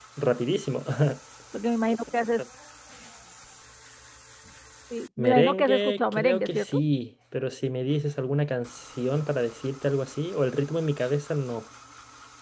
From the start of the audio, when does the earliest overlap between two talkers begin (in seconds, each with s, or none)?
5.2 s